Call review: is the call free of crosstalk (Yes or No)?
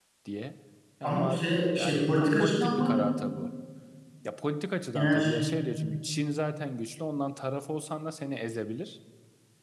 No